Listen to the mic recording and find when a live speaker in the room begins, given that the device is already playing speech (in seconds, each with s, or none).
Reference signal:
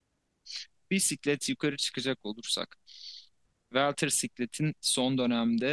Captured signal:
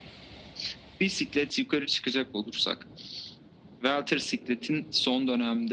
none